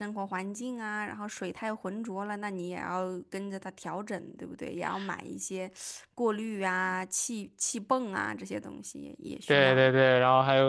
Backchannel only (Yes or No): No